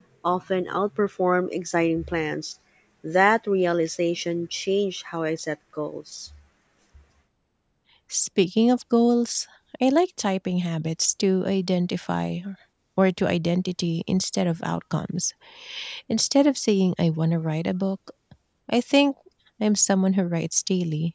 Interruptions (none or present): none